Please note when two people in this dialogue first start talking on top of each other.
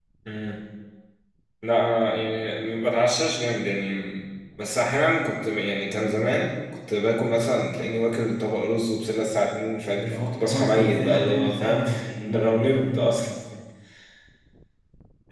10.0 s

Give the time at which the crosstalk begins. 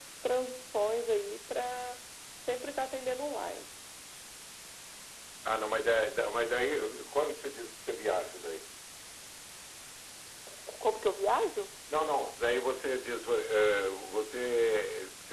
none

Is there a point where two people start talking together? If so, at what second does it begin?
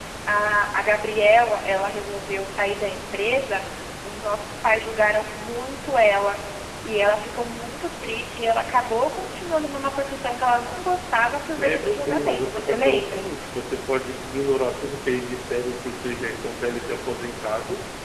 11.6 s

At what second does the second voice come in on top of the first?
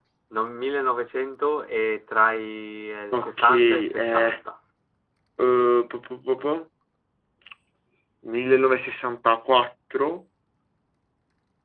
3.1 s

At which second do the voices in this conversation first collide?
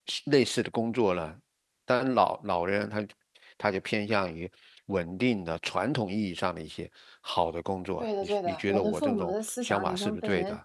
8.0 s

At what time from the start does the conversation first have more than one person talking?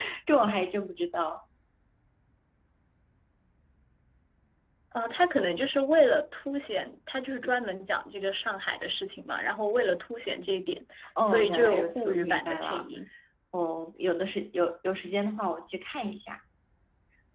11.2 s

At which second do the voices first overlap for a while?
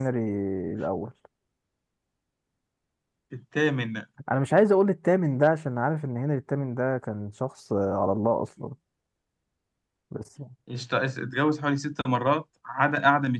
none

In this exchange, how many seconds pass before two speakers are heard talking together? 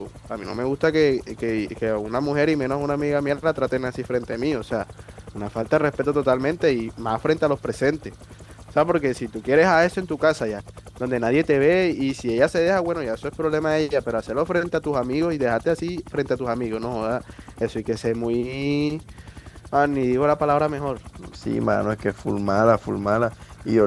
none

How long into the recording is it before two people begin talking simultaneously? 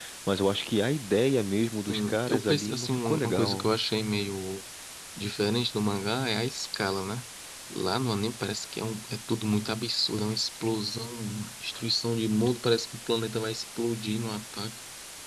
1.9 s

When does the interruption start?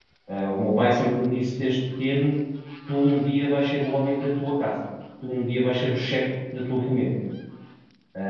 none

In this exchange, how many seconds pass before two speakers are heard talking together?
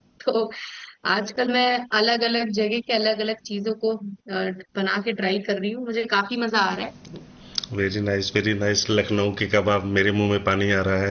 none

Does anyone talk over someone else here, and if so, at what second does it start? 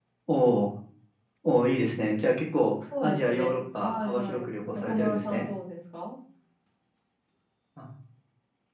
2.9 s

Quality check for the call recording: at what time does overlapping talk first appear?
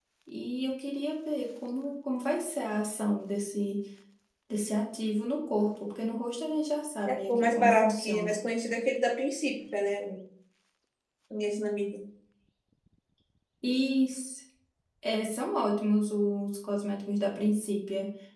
7.1 s

